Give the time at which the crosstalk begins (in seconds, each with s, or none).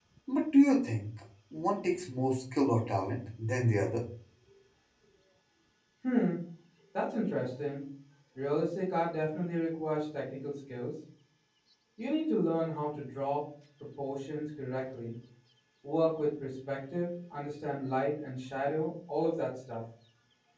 none